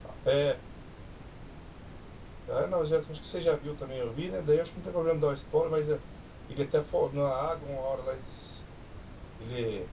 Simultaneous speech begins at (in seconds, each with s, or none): none